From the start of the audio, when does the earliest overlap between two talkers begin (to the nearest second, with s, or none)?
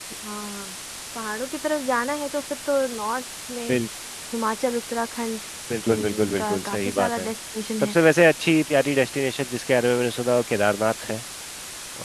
6 s